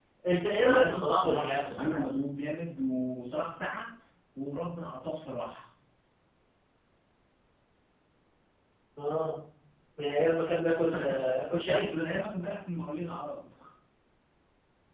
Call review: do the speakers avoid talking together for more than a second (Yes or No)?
No